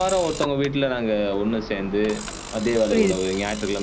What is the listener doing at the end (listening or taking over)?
listening